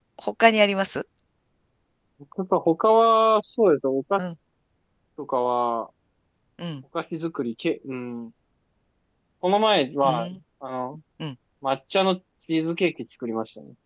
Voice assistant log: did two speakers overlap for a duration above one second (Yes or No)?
No